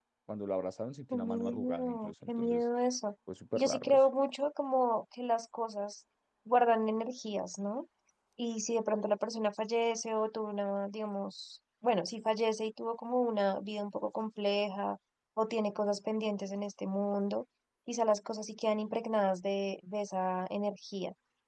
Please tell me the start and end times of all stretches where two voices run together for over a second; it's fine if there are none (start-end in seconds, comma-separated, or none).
1.1-2.6